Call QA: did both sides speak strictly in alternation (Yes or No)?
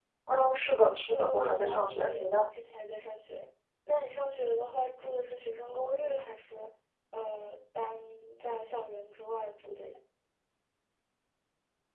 No